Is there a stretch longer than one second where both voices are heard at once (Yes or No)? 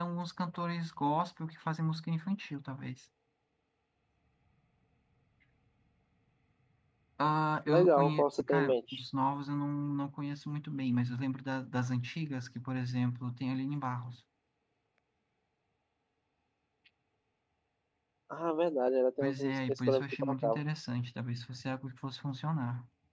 Yes